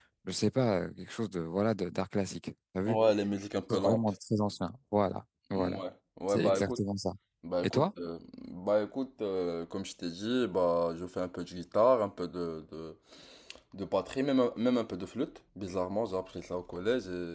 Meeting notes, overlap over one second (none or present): none